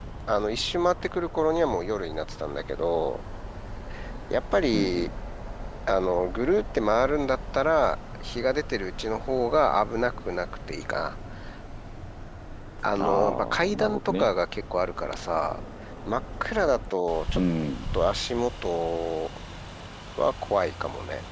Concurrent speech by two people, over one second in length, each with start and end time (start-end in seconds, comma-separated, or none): 13.0-14.3